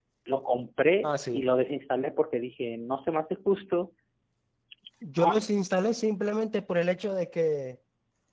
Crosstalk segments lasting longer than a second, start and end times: none

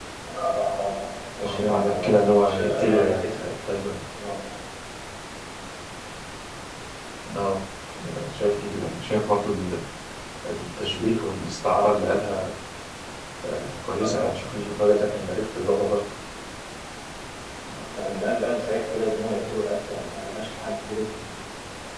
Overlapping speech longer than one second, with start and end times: 1.4-3.4

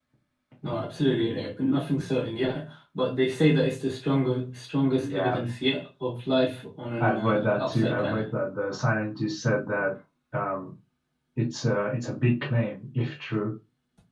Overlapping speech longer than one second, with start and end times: 7.0-8.2

